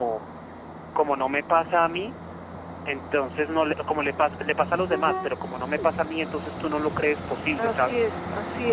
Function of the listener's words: taking over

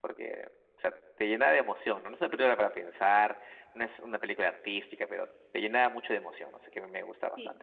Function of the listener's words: taking over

